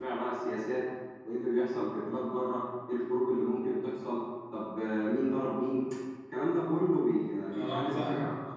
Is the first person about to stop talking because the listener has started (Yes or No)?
Yes